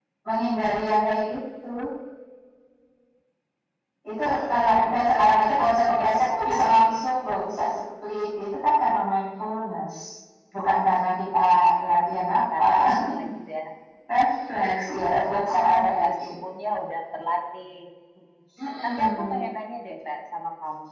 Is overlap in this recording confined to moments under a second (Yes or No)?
No